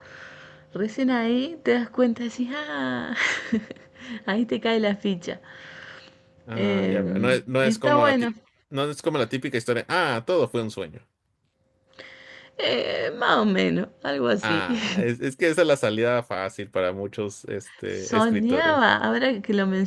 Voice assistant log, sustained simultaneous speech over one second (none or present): present